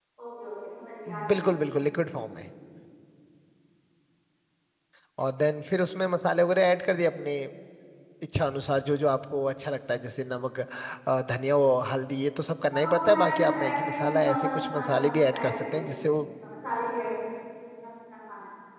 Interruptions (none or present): present